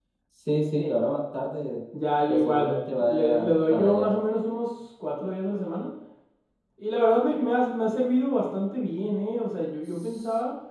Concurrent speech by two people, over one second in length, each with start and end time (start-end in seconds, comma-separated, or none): 2.3-4.1